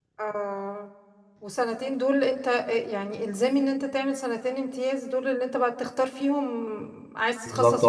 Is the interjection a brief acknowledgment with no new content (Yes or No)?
No